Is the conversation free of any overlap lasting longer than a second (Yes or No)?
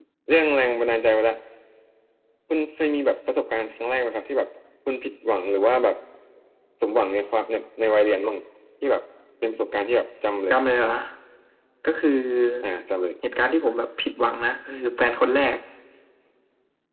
Yes